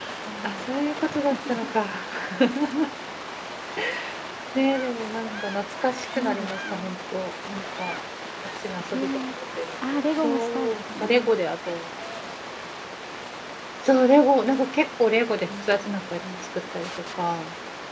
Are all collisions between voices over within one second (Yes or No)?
No